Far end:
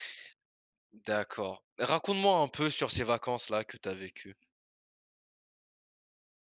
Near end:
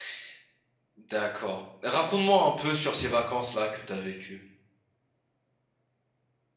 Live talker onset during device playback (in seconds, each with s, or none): none